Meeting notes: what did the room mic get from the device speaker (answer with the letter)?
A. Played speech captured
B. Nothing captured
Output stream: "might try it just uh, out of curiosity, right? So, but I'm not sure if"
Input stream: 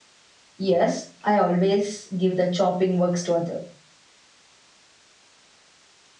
B